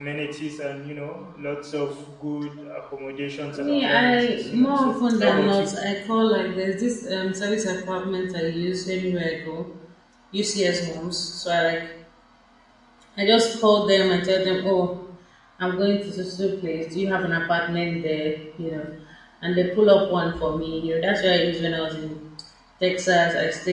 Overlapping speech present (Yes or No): Yes